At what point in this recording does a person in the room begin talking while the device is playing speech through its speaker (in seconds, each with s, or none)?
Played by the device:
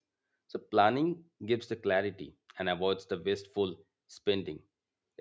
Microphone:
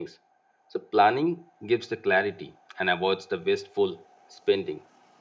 none